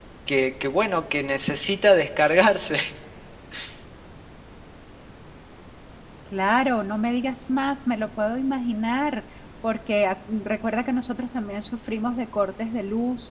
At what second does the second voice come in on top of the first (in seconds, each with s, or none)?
none